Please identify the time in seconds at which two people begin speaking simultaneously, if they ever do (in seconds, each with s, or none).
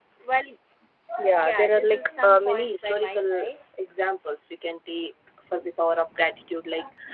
1.4 s